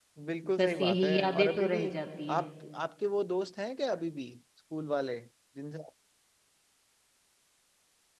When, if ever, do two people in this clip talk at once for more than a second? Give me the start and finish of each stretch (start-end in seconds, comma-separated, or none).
0.6-1.8